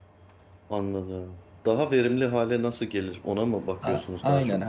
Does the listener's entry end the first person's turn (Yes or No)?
Yes